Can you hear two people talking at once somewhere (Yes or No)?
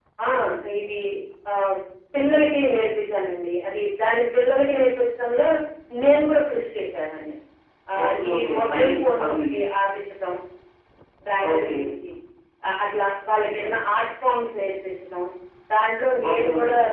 Yes